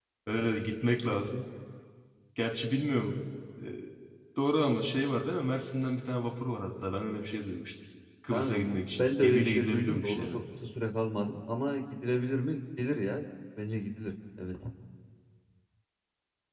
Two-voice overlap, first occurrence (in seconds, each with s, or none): 8.3 s